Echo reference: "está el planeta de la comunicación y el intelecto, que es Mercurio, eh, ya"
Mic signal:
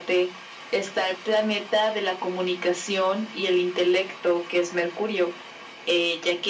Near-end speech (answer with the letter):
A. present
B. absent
B